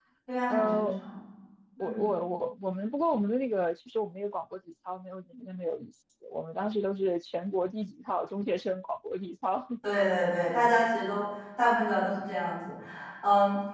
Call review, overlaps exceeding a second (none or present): none